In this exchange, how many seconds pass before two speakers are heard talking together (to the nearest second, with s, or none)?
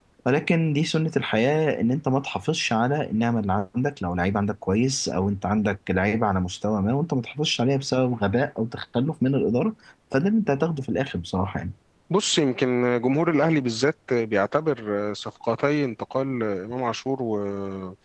none